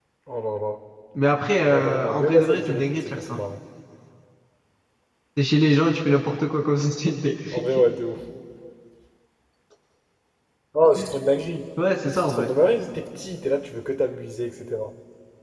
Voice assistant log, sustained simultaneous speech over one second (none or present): present